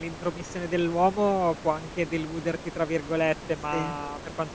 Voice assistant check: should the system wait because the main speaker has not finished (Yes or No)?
Yes